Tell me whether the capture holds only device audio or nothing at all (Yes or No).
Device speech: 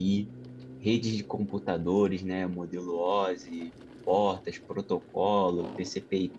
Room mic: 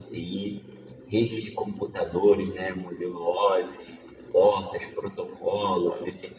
Yes